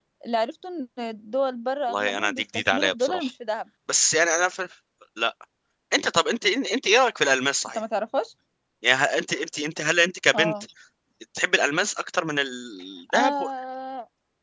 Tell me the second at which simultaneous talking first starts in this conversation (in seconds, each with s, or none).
1.9 s